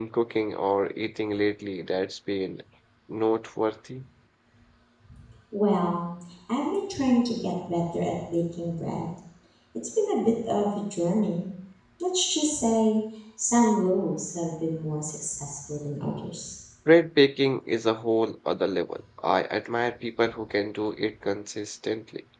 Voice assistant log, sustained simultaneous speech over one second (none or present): none